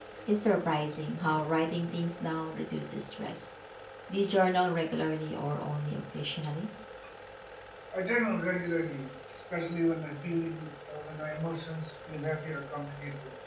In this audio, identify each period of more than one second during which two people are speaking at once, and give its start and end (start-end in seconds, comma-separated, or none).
none